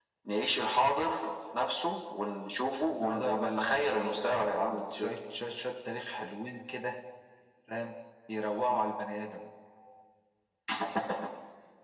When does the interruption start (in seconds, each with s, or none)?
3.0 s